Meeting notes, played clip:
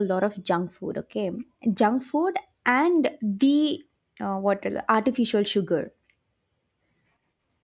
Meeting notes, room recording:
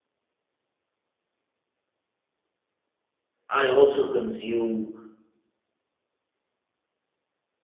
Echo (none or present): none